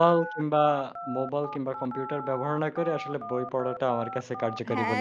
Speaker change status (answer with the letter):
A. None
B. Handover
B